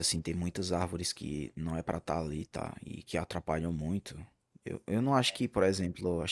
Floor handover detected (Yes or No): No